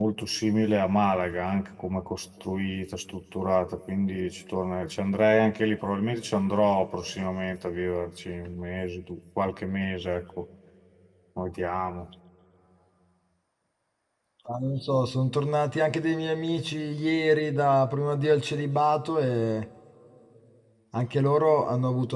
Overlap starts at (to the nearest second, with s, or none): none